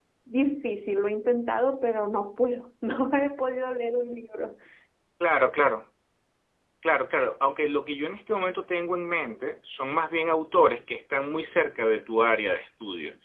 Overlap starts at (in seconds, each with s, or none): none